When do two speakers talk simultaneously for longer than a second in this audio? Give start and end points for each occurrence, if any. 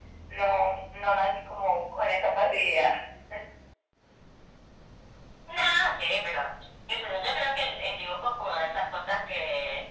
none

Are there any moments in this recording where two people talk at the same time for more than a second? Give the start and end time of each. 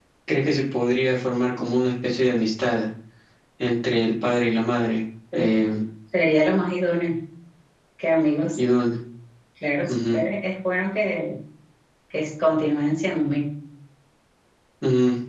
none

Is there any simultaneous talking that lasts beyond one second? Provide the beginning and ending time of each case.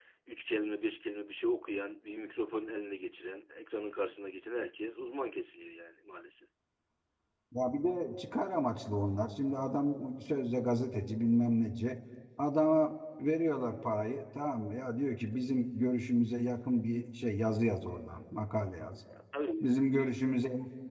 none

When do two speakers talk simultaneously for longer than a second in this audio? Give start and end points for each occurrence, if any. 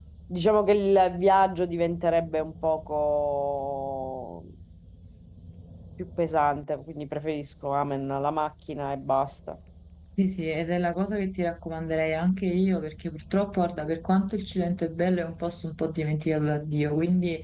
none

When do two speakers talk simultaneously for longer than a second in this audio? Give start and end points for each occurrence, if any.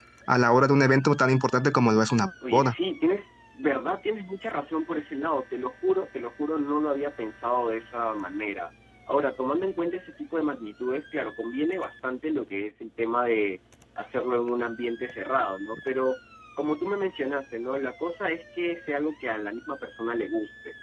none

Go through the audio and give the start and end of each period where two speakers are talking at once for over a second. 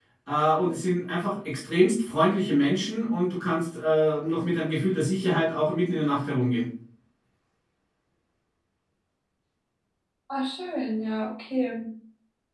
none

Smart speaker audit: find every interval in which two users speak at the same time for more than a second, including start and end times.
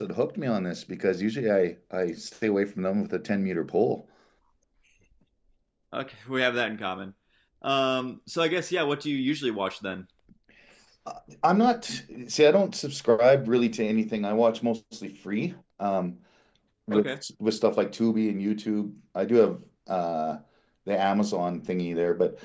none

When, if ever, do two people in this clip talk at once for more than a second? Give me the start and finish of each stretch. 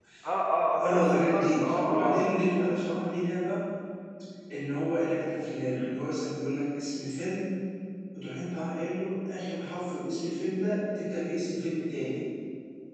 0.8-2.2

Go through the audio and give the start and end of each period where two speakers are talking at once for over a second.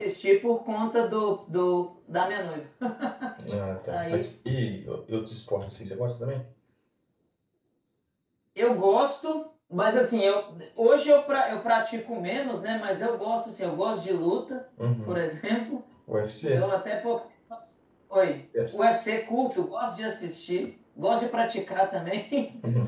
none

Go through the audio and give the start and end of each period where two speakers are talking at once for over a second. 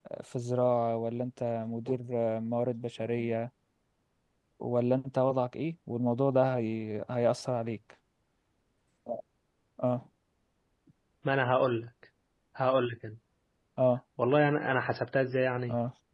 none

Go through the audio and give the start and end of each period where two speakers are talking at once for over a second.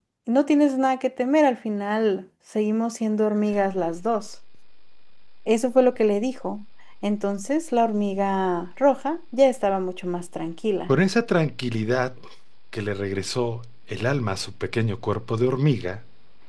none

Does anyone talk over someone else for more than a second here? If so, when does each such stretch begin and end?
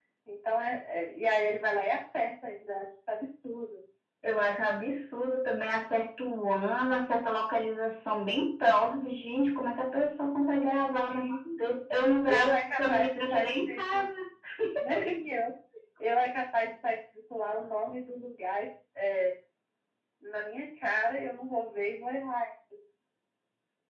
12.3-14.0

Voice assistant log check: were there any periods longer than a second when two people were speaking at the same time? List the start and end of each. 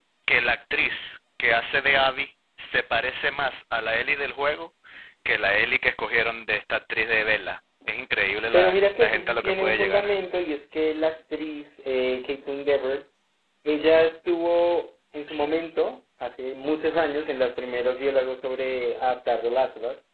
8.5-10.1

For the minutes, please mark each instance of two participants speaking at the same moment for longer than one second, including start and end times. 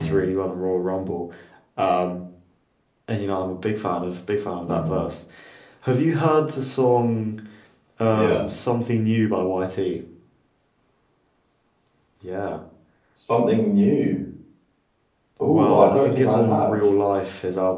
15.4-16.8

